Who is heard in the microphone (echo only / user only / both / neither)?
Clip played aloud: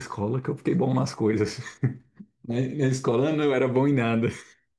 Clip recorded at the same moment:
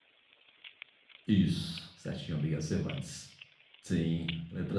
user only